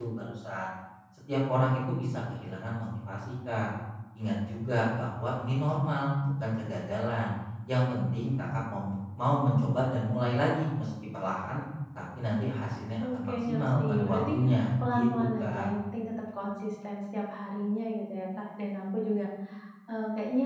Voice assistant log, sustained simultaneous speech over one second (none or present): present